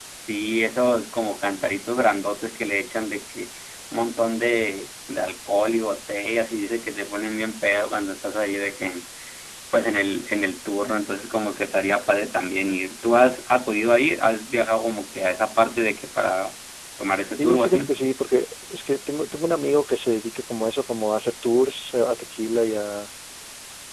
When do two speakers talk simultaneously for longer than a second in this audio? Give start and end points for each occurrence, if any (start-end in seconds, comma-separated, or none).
none